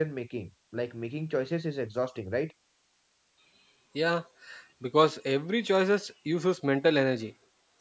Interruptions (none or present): none